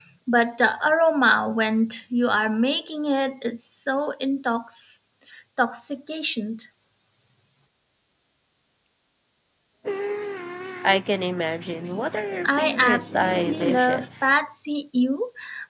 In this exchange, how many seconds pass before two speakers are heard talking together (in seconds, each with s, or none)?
12.4 s